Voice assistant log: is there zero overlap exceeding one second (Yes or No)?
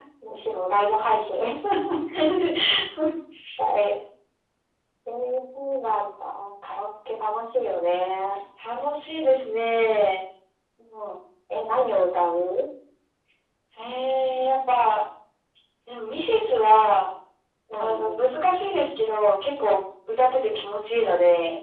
Yes